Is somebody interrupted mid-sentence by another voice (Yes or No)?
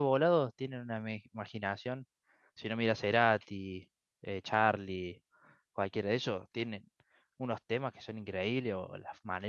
No